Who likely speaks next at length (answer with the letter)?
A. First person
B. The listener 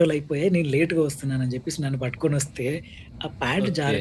A